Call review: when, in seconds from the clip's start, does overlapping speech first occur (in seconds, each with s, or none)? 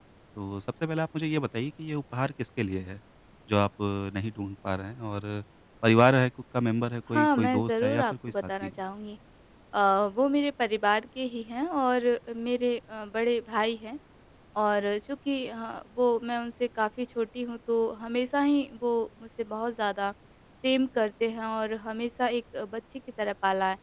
7.1 s